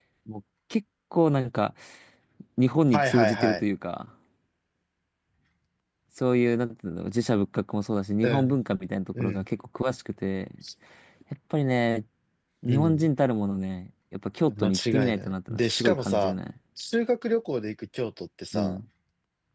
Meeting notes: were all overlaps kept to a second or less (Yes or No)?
No